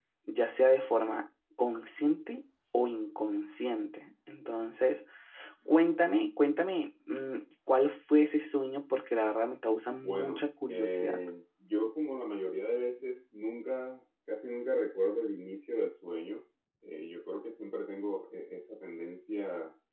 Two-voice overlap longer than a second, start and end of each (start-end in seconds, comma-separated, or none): 9.9-11.2